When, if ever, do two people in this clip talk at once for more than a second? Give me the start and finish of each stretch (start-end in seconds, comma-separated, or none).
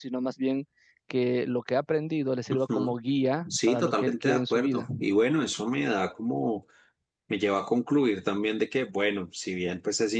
3.5-4.8